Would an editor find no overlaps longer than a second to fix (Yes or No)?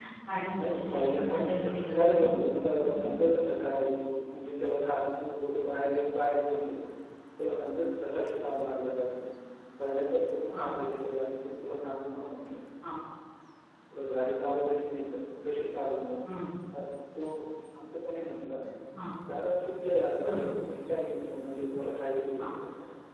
No